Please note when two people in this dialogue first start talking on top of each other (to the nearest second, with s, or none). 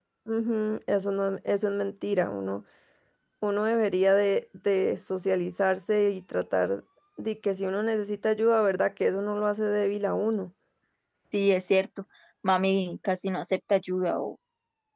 none